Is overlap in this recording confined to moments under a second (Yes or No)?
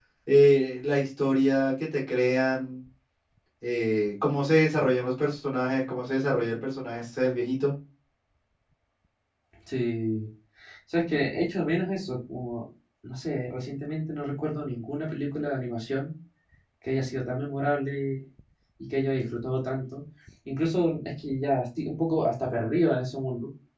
Yes